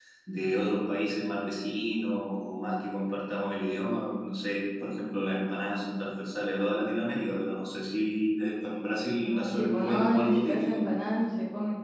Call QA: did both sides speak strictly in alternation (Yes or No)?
No